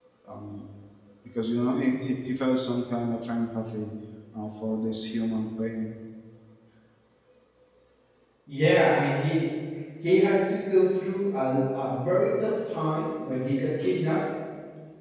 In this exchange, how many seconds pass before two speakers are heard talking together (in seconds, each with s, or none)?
none